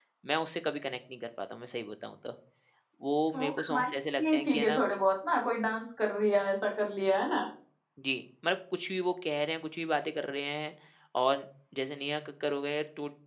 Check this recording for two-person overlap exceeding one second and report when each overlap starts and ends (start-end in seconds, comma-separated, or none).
3.3-4.8